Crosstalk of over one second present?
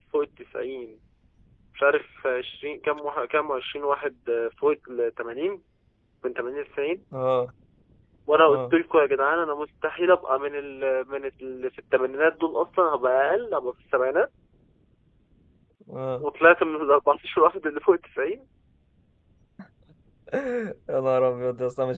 No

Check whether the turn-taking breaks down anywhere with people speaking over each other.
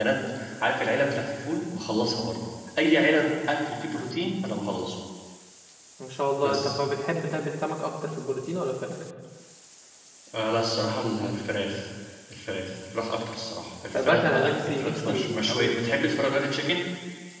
Yes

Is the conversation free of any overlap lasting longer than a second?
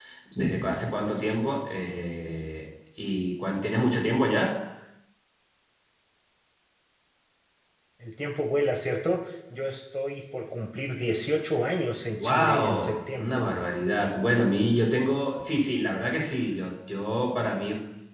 No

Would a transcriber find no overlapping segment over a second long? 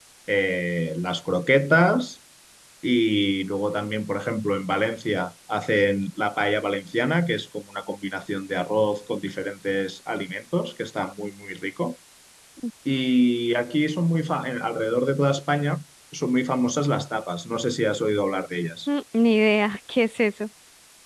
Yes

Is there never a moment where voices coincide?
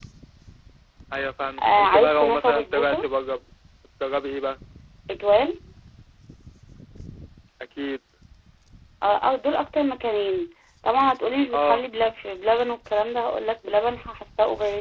No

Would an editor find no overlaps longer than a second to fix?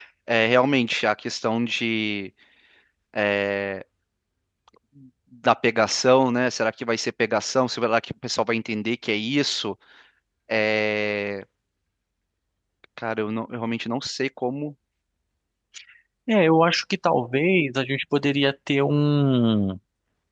Yes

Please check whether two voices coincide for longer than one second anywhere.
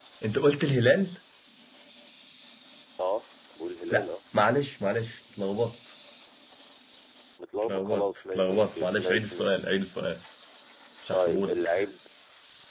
Yes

